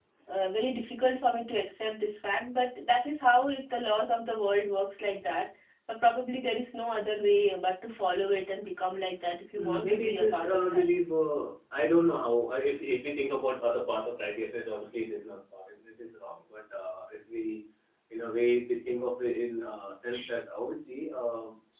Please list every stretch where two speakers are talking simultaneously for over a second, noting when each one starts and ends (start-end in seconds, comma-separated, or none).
9.6-10.8